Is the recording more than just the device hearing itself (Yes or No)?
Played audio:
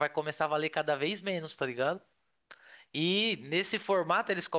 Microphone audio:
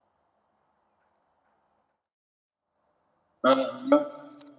Yes